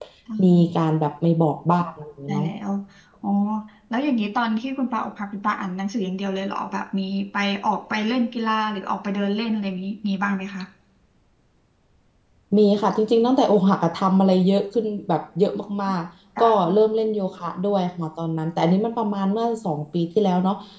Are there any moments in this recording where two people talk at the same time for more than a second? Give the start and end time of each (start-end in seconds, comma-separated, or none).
none